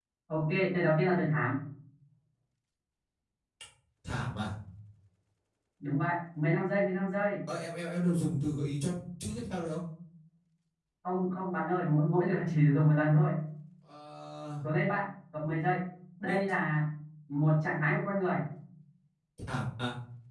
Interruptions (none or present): none